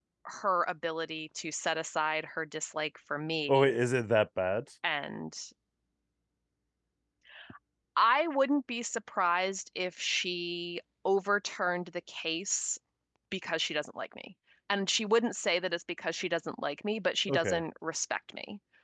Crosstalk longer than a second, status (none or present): none